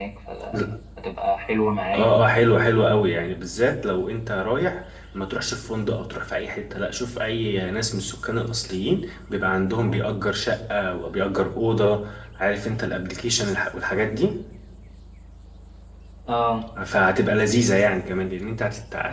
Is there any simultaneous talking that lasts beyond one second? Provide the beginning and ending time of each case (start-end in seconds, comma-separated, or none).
none